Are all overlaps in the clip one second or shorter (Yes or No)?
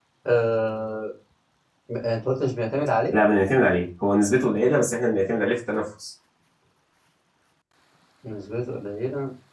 Yes